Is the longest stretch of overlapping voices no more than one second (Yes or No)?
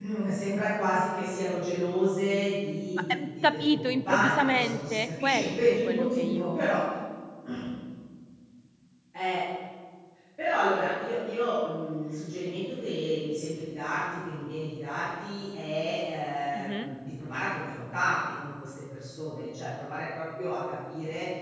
No